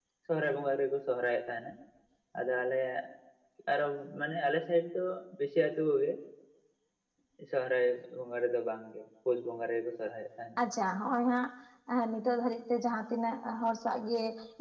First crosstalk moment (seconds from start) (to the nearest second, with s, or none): none